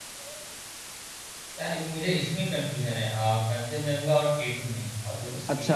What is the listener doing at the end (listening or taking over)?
taking over